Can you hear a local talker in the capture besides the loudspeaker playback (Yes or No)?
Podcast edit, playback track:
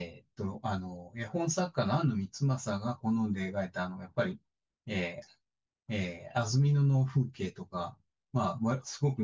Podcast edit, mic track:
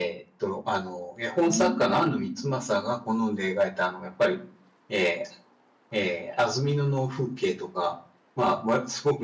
Yes